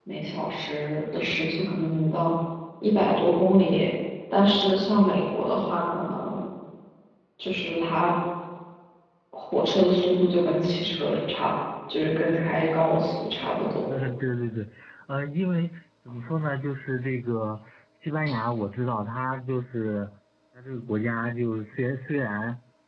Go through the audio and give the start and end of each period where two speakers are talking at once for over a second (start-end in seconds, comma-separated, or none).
none